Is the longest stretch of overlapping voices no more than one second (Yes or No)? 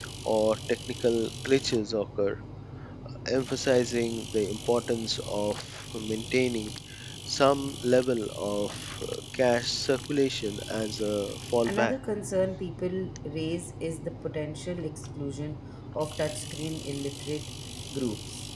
Yes